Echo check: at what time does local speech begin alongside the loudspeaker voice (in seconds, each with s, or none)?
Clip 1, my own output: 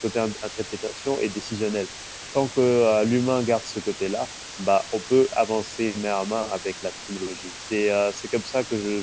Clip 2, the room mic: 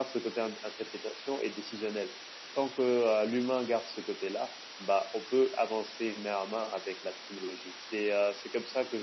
none